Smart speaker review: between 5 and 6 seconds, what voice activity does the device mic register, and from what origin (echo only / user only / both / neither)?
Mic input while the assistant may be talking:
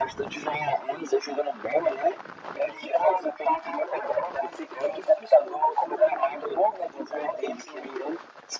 echo only